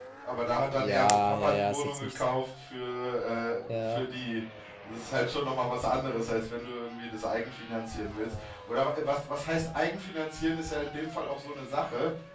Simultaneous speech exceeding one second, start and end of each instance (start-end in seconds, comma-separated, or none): 0.8-2.2